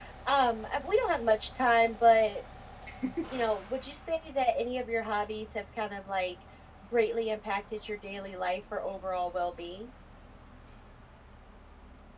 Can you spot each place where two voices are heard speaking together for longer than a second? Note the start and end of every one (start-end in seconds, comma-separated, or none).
none